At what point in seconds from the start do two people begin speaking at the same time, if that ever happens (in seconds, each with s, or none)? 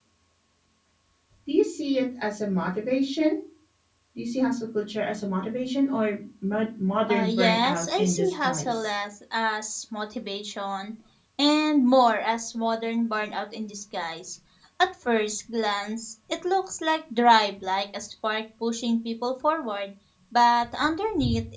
7.1 s